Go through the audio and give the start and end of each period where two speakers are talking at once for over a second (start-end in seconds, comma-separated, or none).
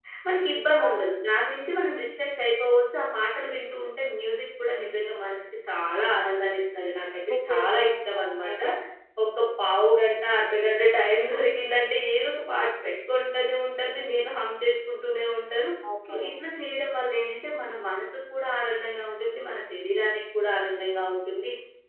7.3-8.6